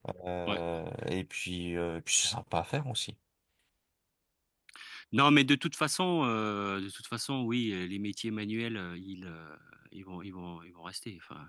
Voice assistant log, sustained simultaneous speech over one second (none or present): none